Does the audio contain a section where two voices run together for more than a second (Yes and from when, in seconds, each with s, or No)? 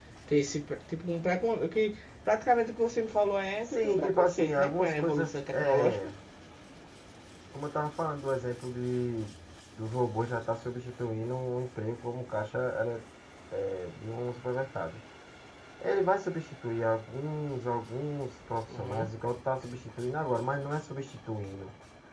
Yes, from 3.8 s